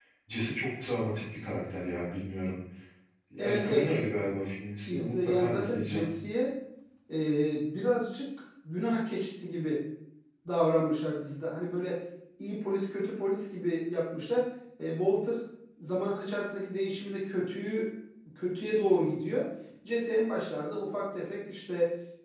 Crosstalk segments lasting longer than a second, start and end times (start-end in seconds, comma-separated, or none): 4.9-6.1